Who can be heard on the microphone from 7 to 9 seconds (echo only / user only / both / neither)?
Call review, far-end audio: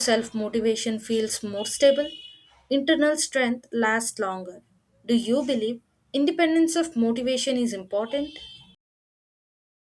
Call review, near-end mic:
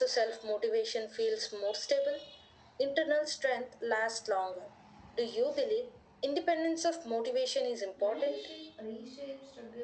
both